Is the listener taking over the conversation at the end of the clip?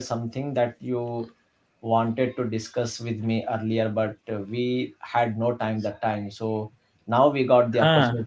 No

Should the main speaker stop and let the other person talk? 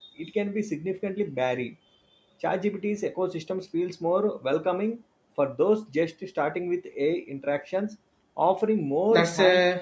Yes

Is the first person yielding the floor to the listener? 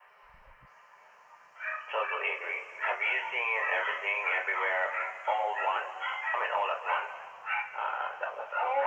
Yes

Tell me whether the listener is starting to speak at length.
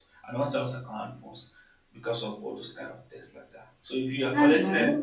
No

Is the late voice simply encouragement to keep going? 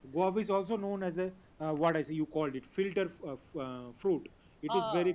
Yes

